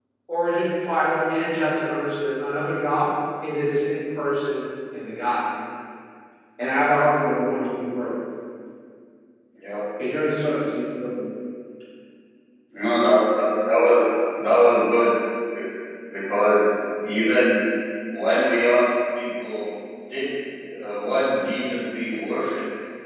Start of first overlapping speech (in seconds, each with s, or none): none